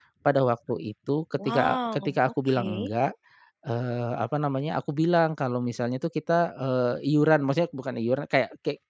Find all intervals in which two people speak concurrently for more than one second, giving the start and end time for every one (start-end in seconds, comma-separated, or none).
1.4-2.9